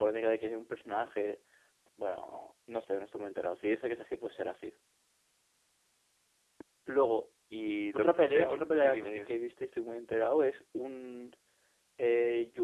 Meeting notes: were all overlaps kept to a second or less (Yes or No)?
No